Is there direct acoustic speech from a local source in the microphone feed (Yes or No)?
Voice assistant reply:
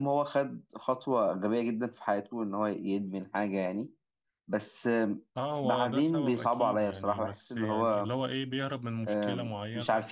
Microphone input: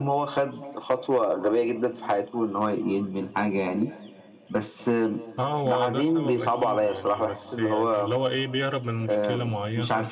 No